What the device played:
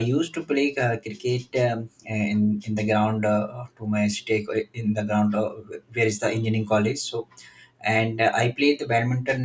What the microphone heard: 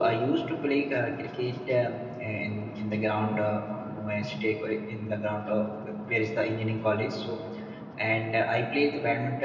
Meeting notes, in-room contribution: none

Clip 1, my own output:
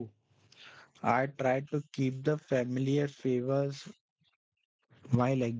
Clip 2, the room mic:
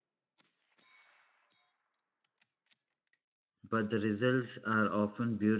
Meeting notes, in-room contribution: present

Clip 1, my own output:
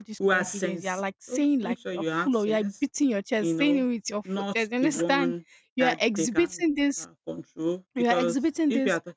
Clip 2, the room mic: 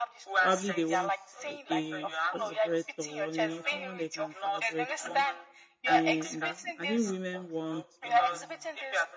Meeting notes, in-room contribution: present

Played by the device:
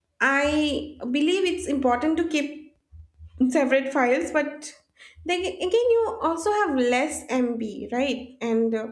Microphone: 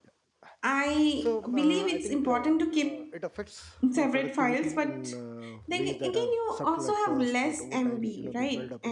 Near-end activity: present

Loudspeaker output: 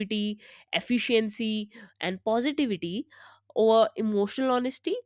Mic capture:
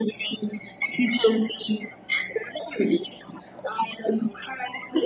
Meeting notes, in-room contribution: none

